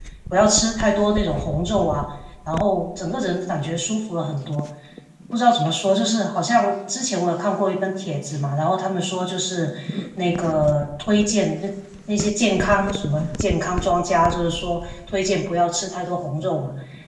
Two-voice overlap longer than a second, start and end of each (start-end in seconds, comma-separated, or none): none